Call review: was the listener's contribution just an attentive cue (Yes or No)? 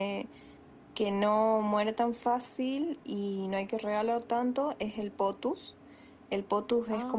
Yes